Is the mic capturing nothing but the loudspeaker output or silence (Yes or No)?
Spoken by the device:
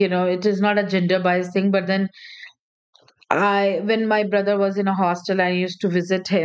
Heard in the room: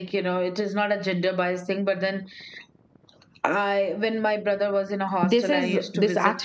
No